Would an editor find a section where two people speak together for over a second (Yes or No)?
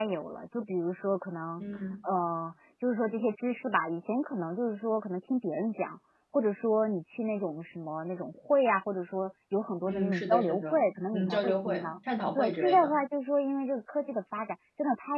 Yes